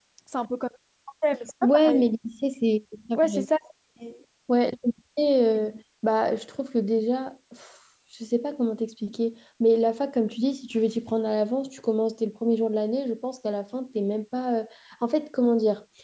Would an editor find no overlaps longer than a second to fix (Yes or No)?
Yes